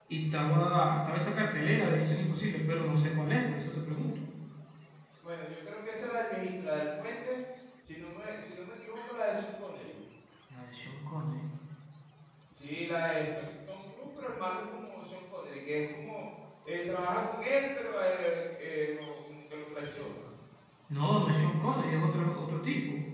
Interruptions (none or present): none